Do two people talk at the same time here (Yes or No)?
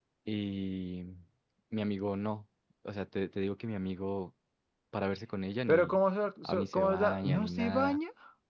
Yes